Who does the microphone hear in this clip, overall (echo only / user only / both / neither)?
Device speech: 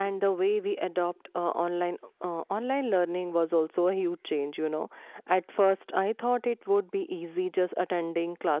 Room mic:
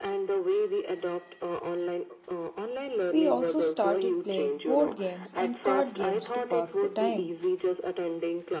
both